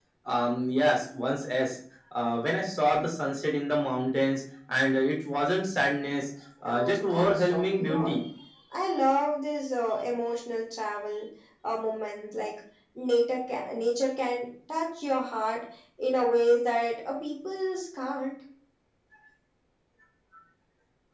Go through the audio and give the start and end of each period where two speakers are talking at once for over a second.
6.7-8.2

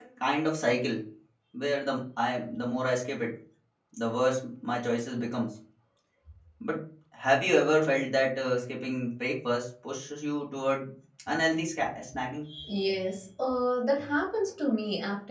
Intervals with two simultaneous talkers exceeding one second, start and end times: none

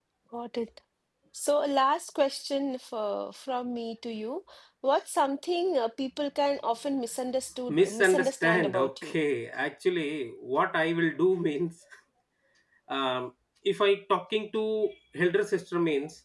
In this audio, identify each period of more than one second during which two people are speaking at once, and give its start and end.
7.8-9.2

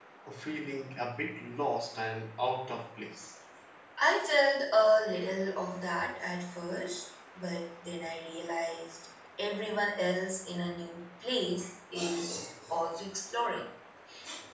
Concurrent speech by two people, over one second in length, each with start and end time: none

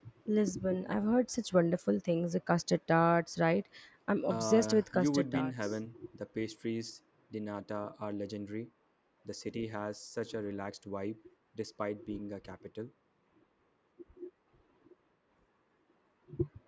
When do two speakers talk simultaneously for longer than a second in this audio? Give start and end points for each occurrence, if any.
4.3-5.8

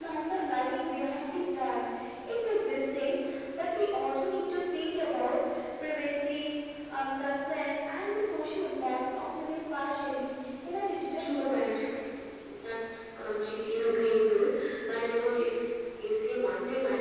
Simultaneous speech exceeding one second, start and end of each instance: none

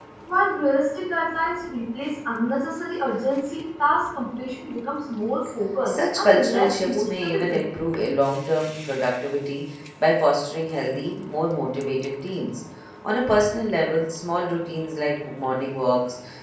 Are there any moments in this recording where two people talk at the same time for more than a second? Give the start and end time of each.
5.9-7.8

